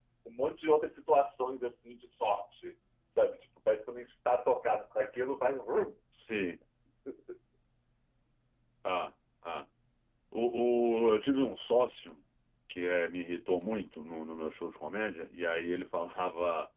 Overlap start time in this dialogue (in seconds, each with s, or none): none